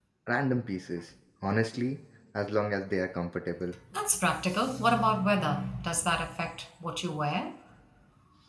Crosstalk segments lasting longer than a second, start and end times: none

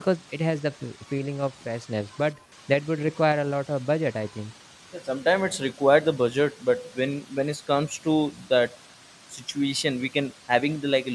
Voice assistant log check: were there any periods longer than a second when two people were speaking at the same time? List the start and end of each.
none

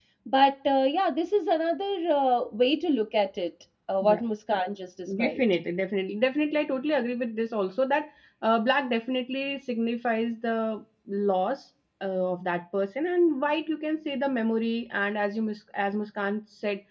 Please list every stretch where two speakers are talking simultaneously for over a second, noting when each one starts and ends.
none

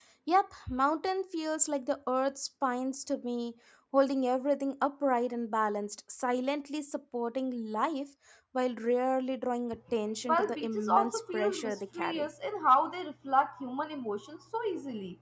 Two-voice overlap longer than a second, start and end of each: 10.3-12.3

